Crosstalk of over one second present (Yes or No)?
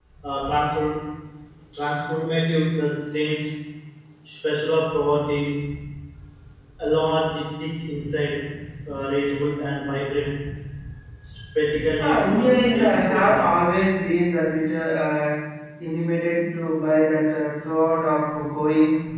Yes